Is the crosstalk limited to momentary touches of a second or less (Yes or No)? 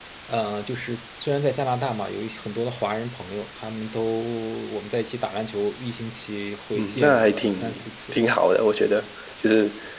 No